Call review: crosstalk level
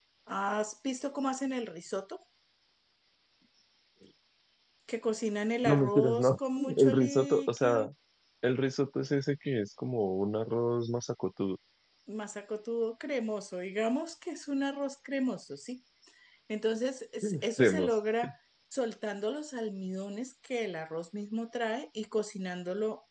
present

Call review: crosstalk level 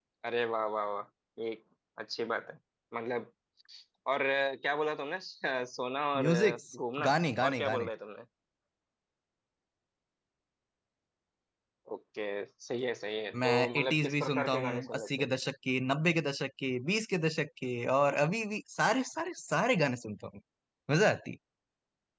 present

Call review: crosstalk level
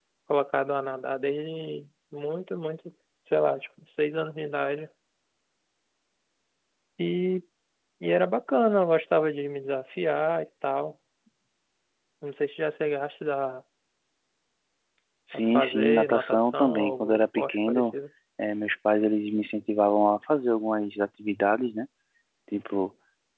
present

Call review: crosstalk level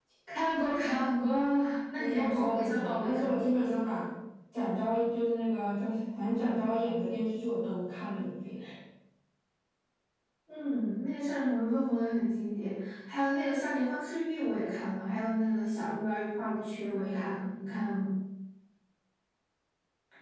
present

